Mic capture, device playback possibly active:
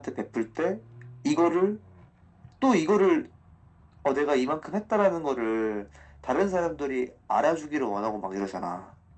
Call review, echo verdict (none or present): present